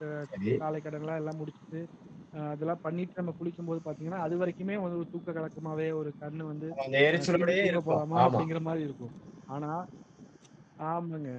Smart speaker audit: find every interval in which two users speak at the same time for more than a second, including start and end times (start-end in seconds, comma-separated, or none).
7.2-8.4